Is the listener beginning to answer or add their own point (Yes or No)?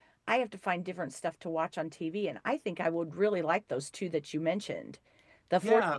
No